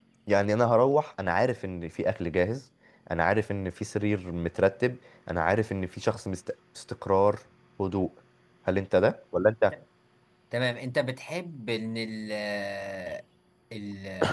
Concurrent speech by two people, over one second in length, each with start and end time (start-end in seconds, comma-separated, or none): none